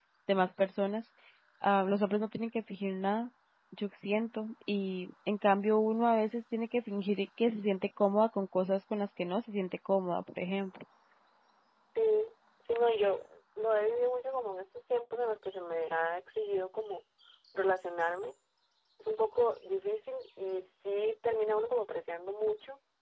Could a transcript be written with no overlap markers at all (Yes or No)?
Yes